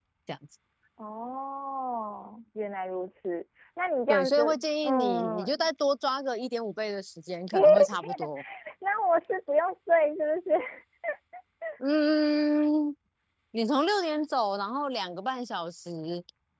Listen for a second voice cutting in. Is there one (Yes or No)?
Yes